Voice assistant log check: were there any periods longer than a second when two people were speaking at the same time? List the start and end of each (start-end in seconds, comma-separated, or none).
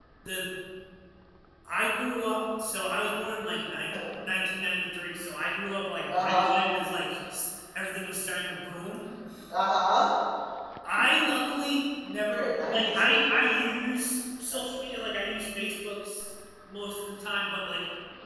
12.3-13.7